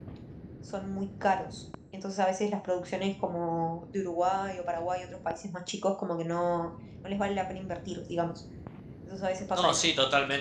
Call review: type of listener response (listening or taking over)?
taking over